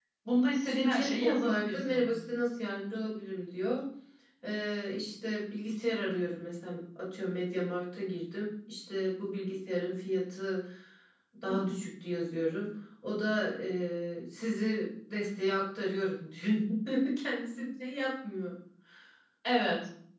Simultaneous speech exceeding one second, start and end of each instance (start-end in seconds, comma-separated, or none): 0.6-2.1